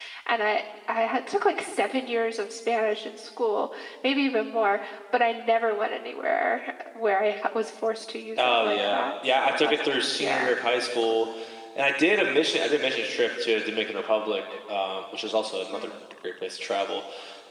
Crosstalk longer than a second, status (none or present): present